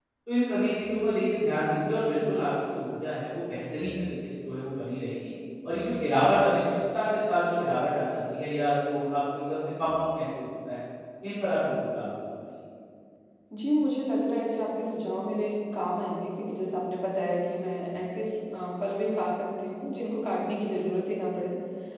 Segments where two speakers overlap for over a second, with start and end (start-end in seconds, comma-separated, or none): none